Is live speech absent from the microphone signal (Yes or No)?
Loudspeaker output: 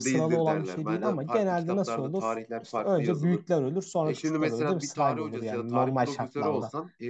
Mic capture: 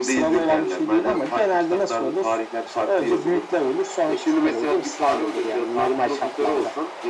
Yes